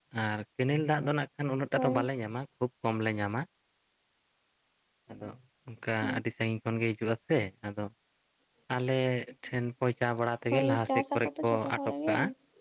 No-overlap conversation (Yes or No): No